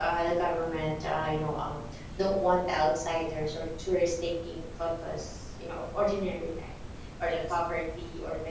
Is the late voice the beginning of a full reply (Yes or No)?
No